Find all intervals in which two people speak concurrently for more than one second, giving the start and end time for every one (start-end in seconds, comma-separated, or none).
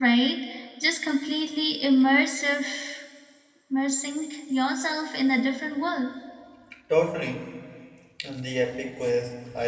none